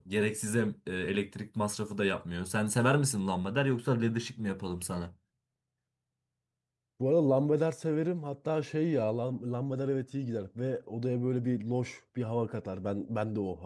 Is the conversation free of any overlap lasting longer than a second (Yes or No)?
Yes